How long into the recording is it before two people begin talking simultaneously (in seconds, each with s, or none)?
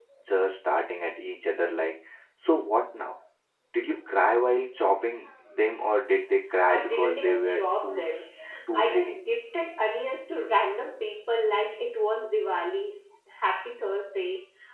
6.7 s